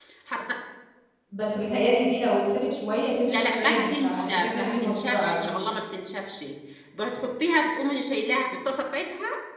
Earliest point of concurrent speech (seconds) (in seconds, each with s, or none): 3.3 s